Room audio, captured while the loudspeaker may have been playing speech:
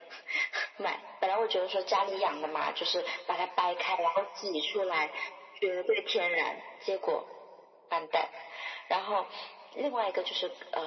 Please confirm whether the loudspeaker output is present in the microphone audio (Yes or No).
Yes